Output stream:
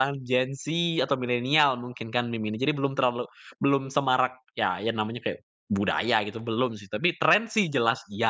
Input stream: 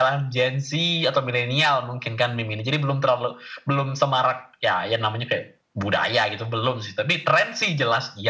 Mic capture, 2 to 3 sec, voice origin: echo only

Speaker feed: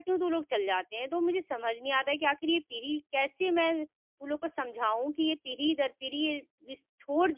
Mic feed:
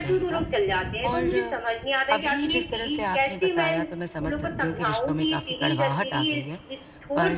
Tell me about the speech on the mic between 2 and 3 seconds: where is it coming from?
both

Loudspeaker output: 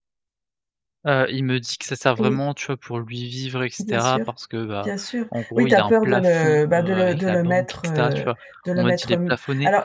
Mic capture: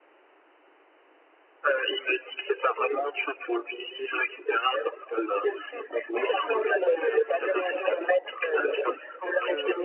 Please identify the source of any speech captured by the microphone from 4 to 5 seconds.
echo only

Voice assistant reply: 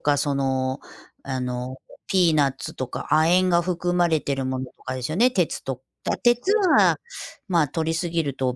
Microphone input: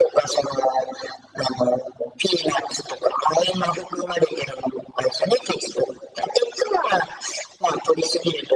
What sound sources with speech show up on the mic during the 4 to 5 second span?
echo only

